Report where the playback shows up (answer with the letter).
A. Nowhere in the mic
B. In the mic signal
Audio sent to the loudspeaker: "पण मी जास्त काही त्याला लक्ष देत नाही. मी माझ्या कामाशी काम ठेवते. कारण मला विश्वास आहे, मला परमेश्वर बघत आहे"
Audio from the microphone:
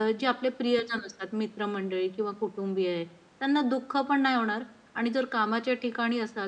A